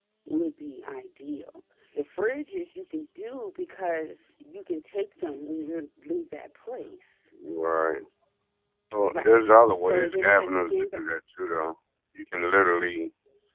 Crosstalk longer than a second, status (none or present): present